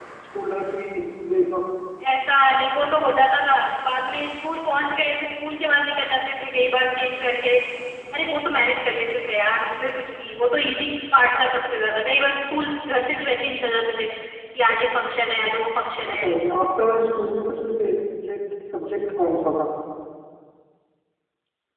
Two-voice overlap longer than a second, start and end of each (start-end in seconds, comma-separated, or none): none